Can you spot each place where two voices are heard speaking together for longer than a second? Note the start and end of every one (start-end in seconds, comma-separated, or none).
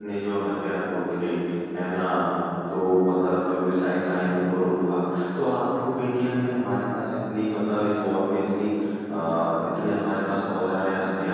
none